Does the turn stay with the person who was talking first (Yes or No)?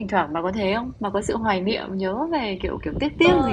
No